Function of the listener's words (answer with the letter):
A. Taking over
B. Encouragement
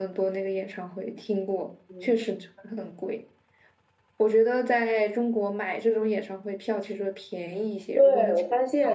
A